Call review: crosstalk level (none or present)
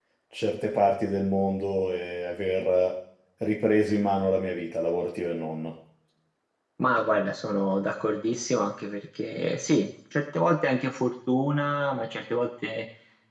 none